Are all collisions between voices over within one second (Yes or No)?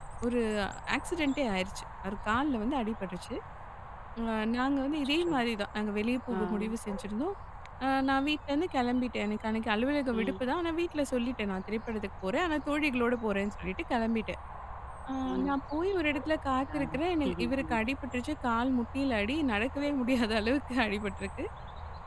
Yes